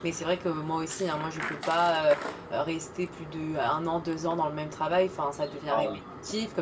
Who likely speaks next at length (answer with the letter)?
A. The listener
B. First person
B